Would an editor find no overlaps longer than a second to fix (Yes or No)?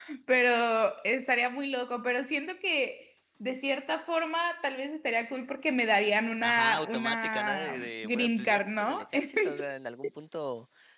No